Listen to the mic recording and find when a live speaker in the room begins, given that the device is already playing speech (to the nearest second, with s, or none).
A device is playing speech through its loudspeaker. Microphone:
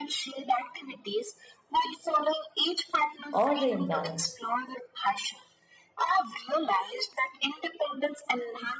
3 s